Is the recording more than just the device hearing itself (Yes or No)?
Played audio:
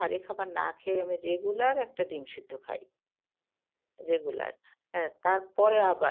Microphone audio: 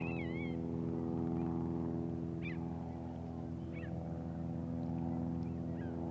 No